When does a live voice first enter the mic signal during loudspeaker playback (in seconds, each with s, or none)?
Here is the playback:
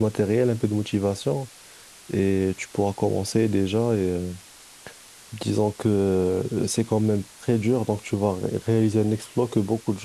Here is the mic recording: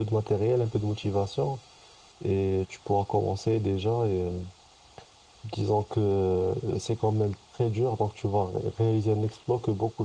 none